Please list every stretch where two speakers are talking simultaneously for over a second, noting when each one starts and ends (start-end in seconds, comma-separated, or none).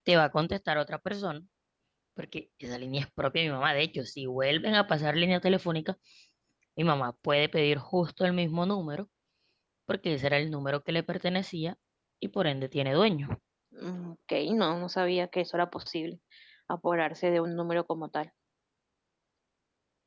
none